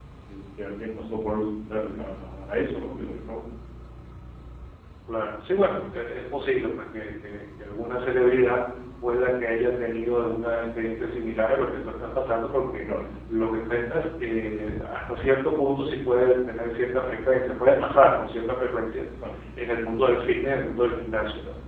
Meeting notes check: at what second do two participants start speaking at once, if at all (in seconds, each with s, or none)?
none